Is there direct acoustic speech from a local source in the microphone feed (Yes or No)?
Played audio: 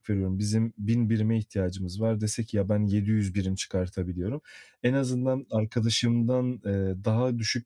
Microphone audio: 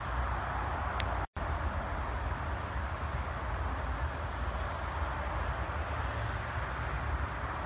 No